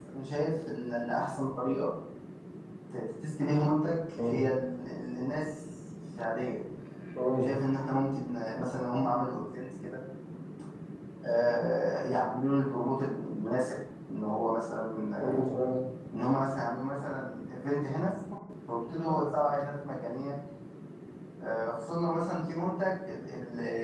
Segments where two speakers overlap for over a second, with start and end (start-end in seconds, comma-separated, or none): none